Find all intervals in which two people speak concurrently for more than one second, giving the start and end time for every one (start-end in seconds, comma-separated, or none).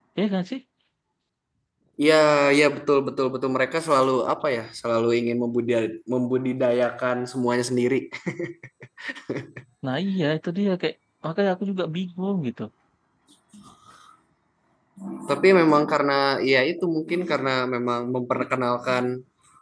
none